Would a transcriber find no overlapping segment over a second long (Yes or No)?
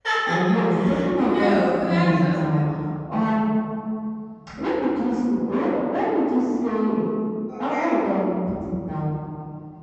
No